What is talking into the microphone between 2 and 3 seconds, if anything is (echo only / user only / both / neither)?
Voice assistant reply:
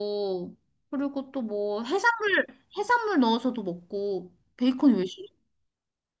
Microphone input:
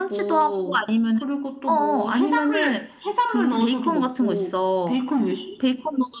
both